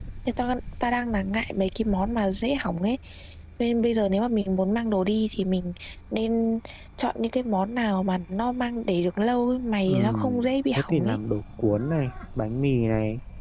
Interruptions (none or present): present